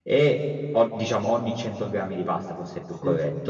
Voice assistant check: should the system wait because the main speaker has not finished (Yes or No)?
Yes